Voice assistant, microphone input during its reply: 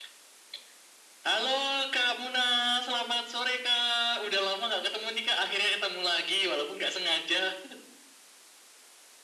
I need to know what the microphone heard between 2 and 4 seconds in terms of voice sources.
echo only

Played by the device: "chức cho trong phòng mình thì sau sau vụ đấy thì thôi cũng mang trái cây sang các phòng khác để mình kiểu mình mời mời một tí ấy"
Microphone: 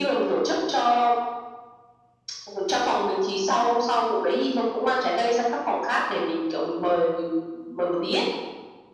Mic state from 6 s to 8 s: echo only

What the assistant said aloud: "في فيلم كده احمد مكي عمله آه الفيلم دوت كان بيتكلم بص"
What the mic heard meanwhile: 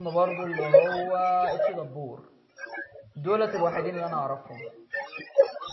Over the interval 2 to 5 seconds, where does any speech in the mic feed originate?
both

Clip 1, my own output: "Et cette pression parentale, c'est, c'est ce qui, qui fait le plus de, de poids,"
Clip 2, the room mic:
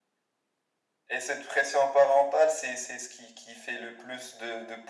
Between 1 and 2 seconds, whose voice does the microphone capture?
echo only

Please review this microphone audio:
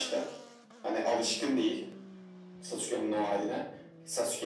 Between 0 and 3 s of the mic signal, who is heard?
echo only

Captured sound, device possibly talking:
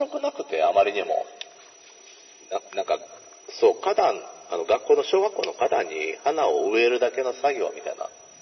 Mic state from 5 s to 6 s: echo only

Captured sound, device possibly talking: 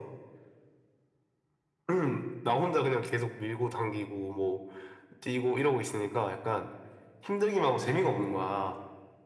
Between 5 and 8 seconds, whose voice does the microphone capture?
echo only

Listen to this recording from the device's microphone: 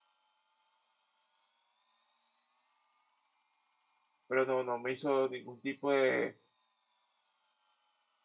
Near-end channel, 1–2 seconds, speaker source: neither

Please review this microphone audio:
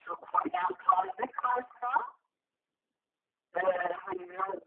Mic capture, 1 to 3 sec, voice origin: echo only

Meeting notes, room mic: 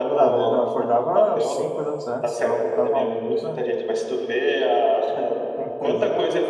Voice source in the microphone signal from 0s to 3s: both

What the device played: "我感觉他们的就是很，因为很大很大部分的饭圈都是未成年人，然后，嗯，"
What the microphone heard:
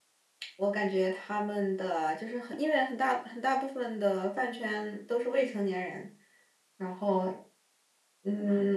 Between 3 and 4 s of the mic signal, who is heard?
echo only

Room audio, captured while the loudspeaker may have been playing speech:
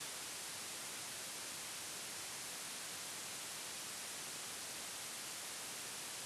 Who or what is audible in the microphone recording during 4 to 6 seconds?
neither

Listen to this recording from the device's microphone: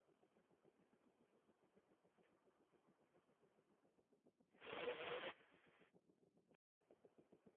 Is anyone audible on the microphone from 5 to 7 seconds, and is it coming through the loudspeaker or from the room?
neither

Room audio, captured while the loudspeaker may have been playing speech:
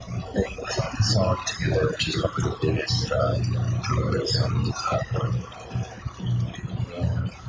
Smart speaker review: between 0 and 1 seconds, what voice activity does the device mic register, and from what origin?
echo only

